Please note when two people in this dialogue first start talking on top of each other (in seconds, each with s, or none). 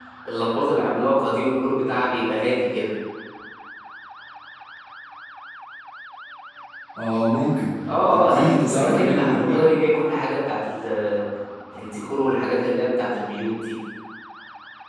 7.9 s